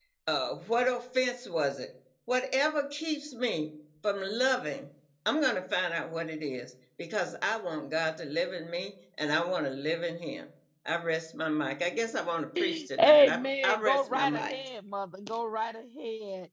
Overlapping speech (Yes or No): Yes